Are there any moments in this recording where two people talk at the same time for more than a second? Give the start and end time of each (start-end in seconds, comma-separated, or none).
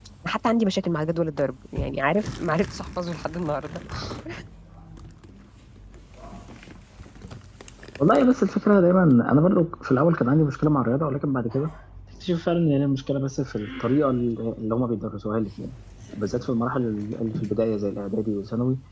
none